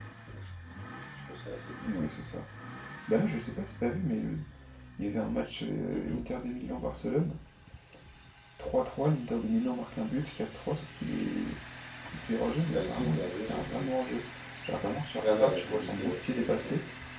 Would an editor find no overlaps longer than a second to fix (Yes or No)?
No